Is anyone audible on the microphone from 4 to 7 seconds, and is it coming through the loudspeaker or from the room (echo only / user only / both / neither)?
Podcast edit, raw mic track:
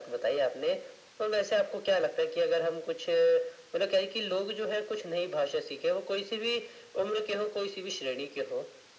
echo only